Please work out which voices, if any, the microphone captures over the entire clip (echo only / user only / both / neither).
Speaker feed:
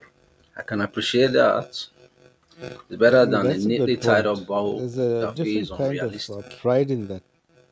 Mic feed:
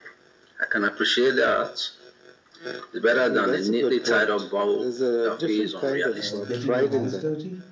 both